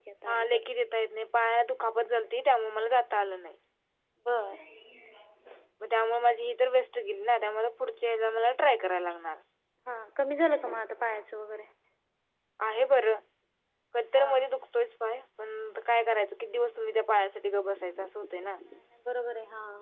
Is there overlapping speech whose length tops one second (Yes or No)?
No